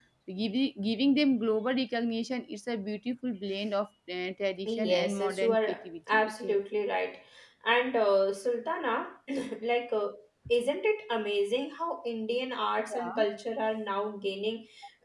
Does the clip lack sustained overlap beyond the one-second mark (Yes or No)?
No